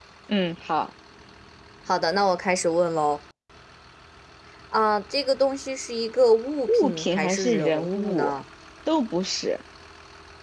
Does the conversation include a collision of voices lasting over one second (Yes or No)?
Yes